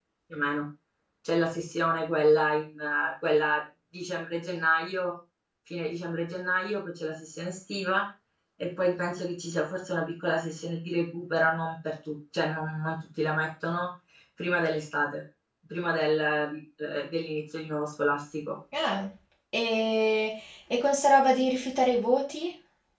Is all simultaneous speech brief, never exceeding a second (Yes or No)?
Yes